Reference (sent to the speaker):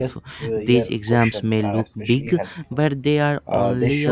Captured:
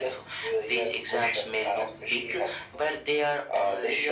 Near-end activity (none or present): none